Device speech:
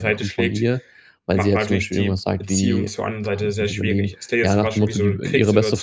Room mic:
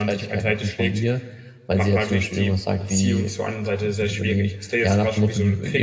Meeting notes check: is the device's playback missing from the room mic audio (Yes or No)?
No